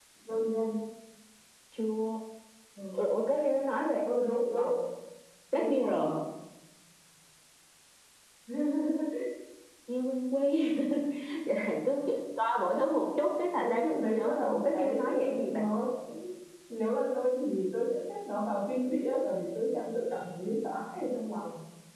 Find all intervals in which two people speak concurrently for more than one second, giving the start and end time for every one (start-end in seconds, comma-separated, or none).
13.6-15.6